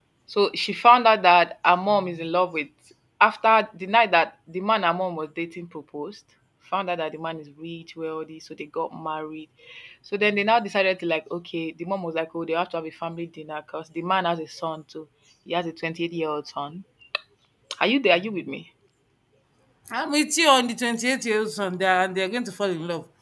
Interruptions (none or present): none